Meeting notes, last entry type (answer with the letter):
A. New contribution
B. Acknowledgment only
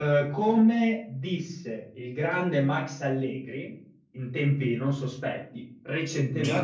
A